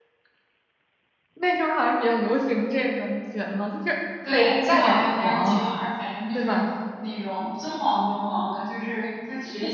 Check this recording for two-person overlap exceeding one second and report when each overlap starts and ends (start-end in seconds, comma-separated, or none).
4.3-5.6